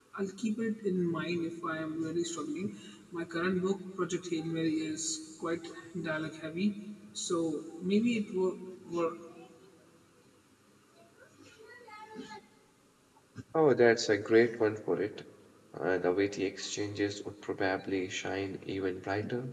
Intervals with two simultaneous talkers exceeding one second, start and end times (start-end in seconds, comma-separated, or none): none